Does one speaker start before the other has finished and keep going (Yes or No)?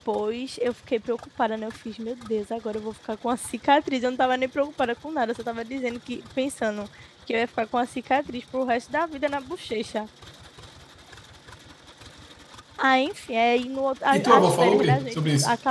Yes